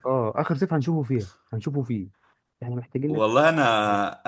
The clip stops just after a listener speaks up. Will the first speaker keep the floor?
No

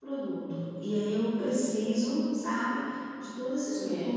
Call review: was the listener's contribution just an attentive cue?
Yes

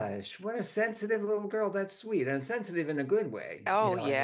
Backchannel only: No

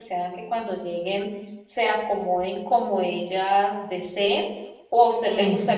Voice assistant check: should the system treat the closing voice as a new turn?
No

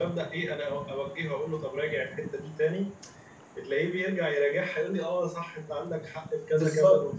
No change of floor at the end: No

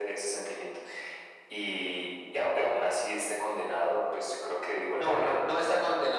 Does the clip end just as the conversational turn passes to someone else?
Yes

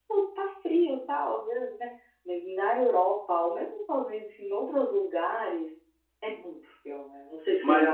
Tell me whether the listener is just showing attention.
No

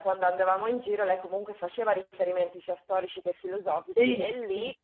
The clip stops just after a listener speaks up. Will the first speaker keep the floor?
Yes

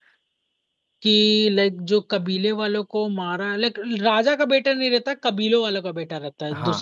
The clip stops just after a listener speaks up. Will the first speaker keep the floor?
No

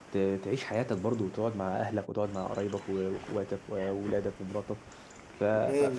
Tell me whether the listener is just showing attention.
No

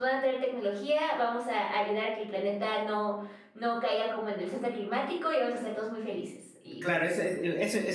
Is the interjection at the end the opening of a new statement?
Yes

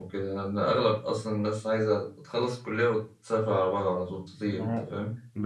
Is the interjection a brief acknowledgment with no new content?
No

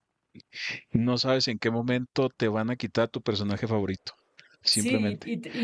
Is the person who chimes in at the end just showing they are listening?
No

